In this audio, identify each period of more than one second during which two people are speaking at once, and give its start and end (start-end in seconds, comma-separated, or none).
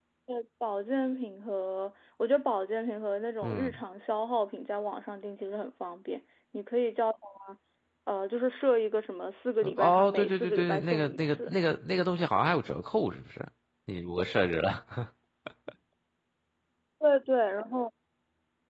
9.6-11.5